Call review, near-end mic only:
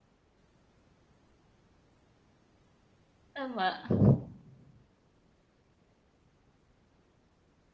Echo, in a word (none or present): none